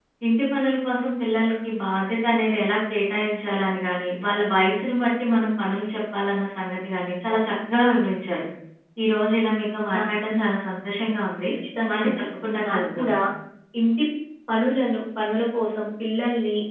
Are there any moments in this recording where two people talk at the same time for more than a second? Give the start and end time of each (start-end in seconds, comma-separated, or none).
none